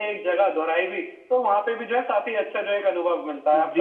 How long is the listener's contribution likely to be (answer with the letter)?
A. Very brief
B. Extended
B